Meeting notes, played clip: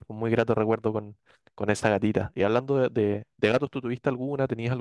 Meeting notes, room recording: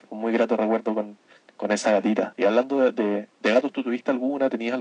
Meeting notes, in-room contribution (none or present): none